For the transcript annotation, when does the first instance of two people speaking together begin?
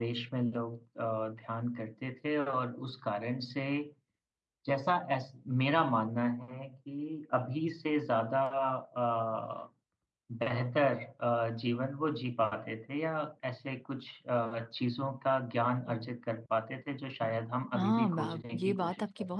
17.7 s

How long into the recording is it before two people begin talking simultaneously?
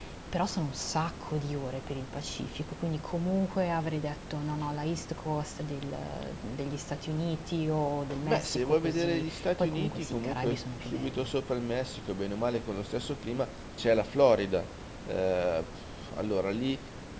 8.2 s

